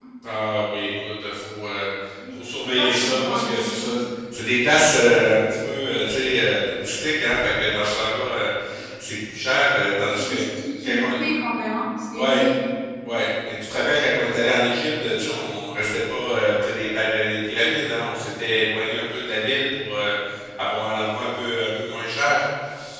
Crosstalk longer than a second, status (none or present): present